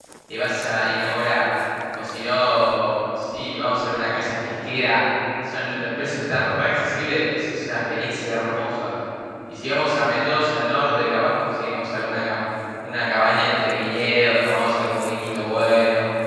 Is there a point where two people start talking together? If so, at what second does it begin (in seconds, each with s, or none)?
none